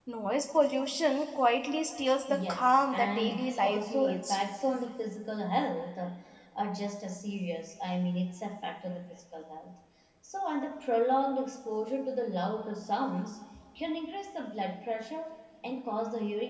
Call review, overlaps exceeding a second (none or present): present